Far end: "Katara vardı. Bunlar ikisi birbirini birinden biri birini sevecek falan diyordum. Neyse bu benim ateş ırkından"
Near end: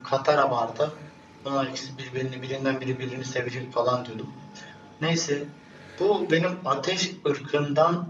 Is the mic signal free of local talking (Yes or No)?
Yes